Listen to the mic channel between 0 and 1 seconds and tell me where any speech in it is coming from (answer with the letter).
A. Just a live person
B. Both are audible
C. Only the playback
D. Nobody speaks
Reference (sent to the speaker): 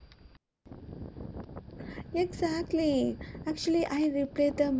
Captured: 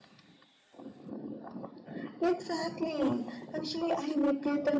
D